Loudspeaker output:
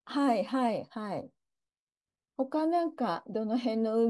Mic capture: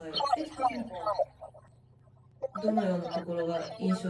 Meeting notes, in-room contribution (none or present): present